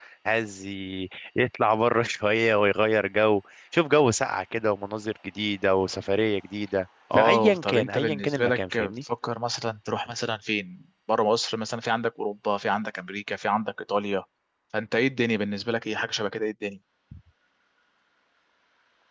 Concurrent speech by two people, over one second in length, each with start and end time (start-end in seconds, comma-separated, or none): 7.1-8.9